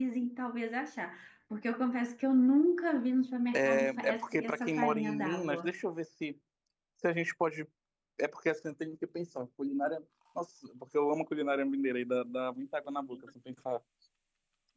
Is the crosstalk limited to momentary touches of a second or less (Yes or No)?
No